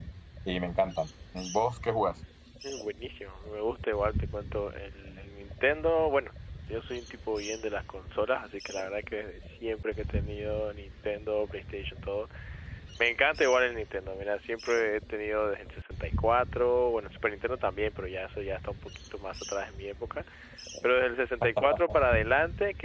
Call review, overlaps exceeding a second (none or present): none